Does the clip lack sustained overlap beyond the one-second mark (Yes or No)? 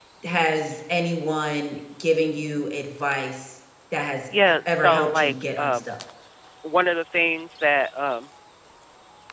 No